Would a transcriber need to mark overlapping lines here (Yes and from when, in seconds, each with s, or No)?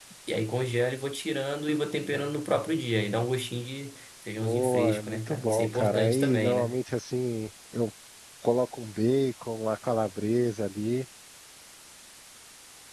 Yes, from 4.4 s